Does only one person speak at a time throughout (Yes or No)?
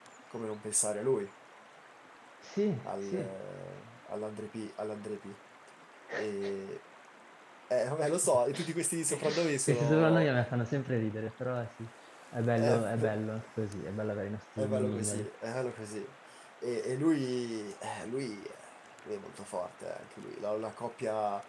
No